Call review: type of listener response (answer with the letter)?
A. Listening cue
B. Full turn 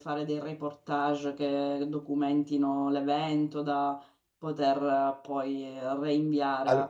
A